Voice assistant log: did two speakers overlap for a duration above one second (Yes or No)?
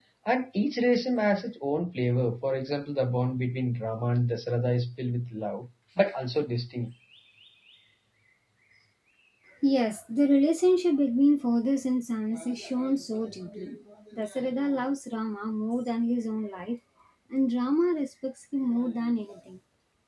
No